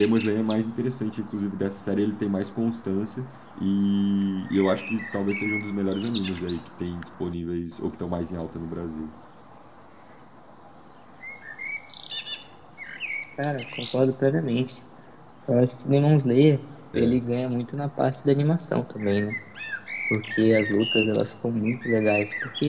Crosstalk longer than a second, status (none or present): none